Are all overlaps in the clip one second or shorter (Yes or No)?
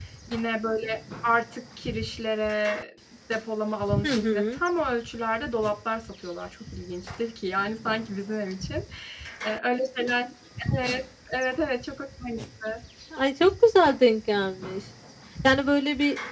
Yes